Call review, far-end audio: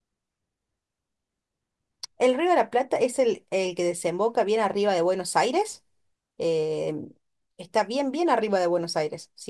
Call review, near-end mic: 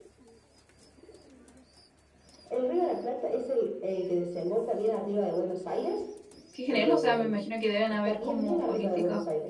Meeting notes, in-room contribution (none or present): present